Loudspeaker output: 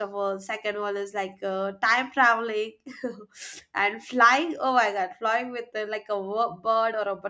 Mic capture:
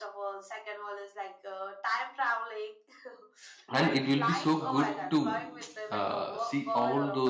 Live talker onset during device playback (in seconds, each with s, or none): 3.7 s